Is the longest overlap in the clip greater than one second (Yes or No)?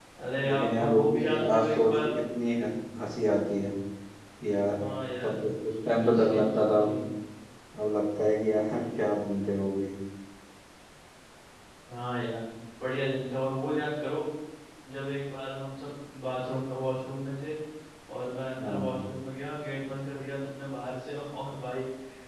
Yes